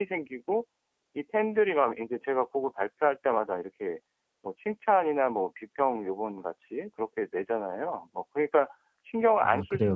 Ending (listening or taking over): taking over